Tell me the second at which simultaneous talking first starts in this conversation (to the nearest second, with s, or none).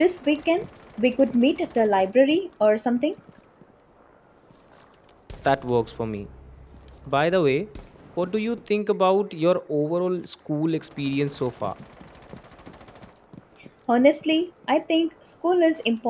none